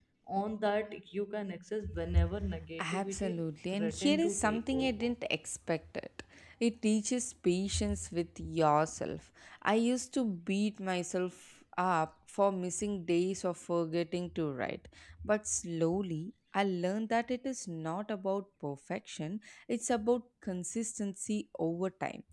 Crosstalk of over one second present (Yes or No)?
Yes